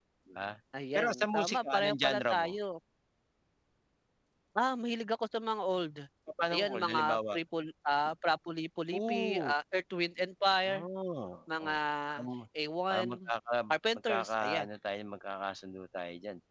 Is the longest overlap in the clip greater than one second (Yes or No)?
Yes